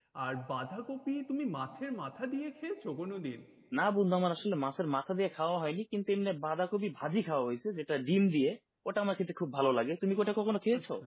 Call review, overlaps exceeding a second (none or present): none